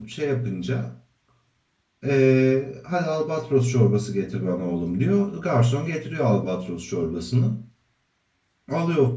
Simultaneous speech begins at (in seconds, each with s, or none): none